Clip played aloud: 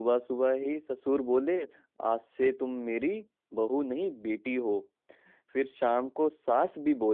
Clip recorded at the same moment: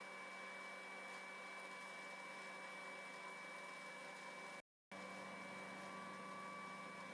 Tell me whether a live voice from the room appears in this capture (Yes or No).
No